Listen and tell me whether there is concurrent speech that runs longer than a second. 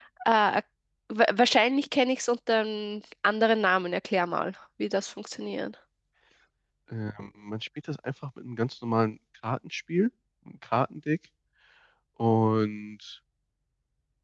No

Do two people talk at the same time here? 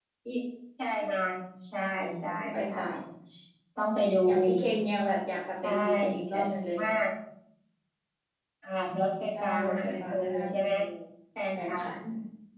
Yes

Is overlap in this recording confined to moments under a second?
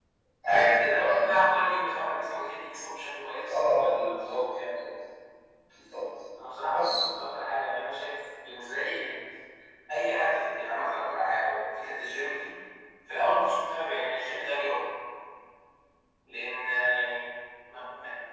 No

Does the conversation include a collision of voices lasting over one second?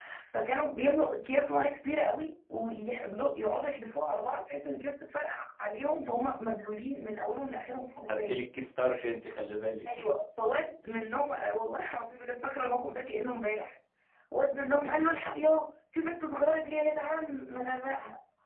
No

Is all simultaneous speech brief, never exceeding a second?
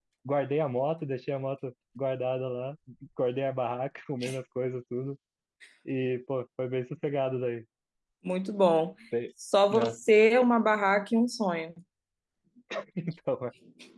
Yes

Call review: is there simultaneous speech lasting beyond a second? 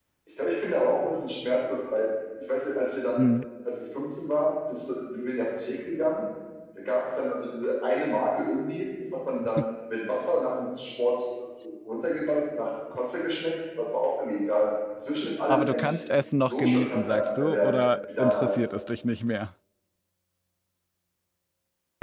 Yes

